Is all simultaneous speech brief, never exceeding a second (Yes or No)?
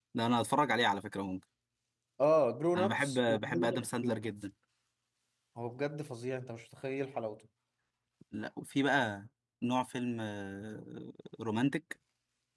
No